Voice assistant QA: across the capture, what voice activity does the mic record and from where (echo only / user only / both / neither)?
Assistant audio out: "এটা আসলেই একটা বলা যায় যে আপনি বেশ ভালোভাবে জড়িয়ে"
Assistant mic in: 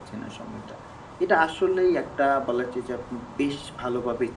echo only